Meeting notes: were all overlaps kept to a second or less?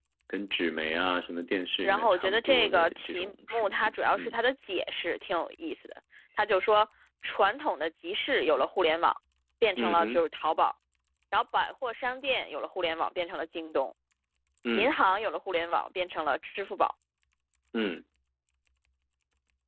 No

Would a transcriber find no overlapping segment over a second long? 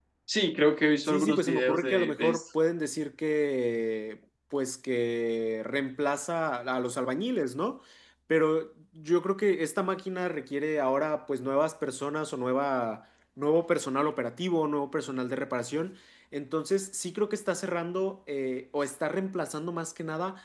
No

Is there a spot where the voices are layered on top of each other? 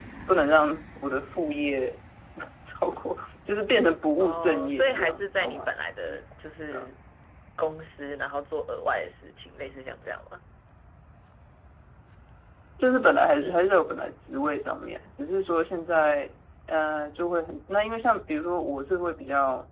Yes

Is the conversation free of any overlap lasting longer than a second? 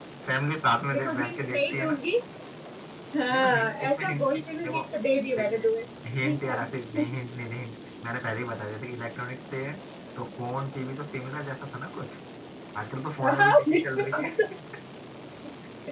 No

